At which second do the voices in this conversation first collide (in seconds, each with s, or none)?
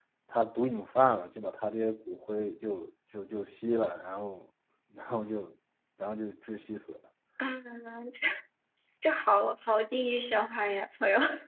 none